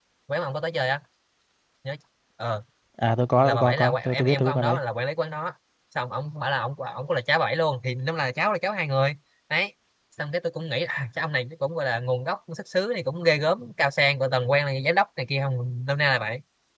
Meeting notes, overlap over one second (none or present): present